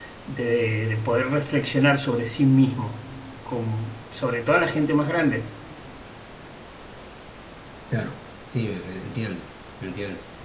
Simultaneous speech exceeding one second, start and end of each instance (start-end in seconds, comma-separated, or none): none